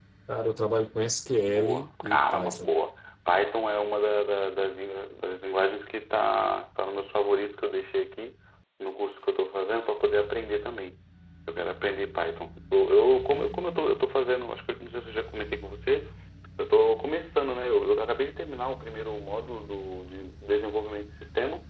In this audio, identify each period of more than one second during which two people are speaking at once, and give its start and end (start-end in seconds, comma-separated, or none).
1.4-2.7